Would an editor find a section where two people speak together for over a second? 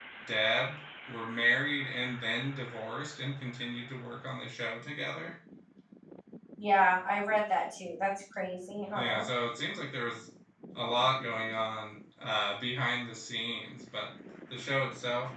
No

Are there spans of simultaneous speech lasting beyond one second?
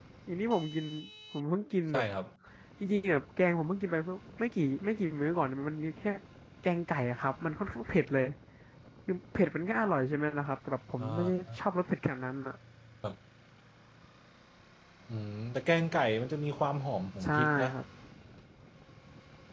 No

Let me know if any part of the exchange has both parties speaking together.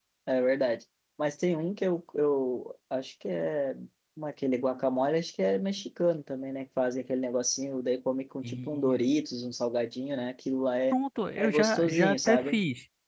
Yes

